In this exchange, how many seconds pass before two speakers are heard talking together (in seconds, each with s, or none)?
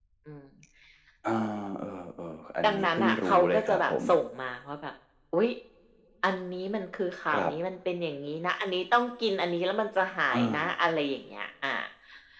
2.6 s